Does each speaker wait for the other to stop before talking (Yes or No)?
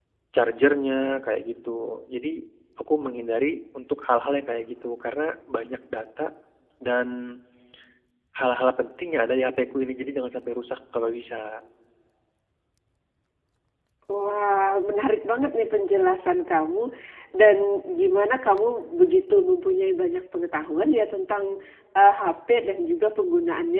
Yes